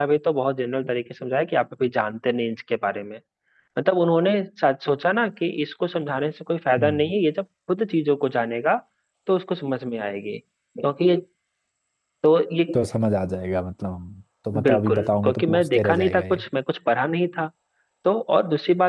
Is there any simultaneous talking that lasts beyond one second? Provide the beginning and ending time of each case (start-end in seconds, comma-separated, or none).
14.6-16.4